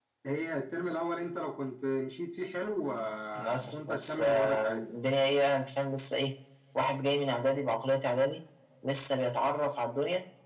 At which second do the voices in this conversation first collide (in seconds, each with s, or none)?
3.4 s